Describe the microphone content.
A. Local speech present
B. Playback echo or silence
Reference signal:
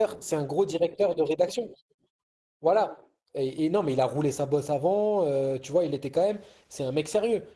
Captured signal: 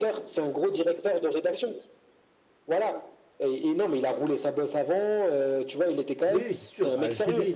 A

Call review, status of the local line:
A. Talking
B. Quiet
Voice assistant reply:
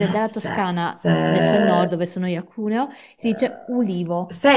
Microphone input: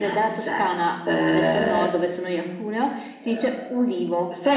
B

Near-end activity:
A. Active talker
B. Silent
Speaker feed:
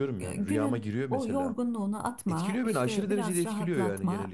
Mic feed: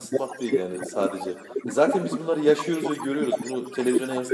A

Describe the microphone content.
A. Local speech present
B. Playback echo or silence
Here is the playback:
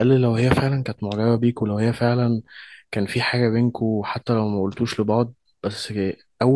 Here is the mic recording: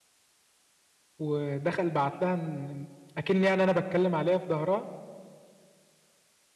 A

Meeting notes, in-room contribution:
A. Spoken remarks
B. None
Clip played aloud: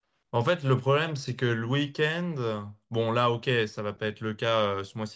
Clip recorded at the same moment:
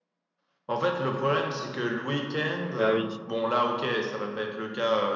A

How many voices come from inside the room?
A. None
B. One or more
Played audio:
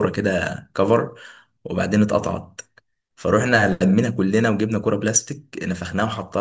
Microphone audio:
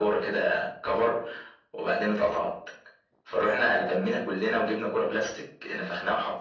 A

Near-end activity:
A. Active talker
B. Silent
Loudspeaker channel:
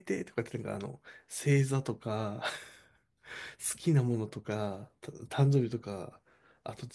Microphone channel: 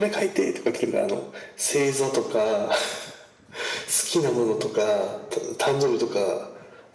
B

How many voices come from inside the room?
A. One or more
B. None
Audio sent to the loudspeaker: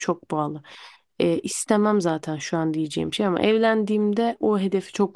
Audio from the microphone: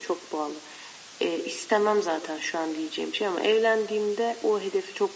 B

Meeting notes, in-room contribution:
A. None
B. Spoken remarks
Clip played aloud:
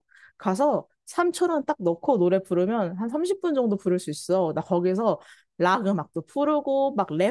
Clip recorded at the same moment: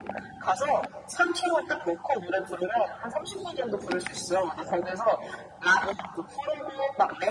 A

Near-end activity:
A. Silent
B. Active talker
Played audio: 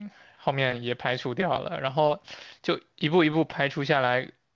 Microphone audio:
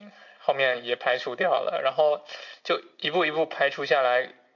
A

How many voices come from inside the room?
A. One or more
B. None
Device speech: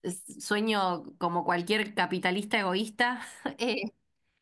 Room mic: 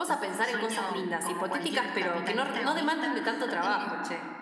A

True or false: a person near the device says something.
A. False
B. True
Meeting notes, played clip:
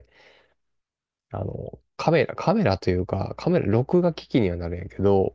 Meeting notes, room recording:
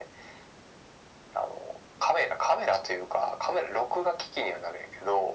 A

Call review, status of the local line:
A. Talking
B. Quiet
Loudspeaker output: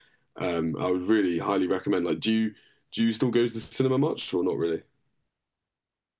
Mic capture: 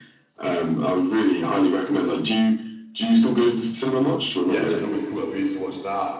A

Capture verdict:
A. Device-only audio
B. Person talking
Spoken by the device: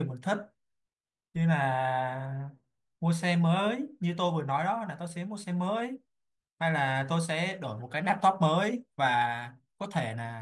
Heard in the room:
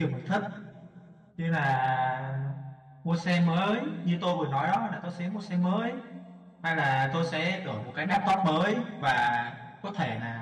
A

